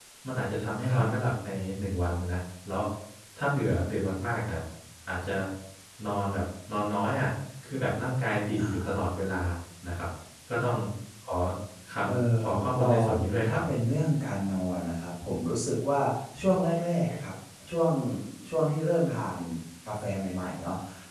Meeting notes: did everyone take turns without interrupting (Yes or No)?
No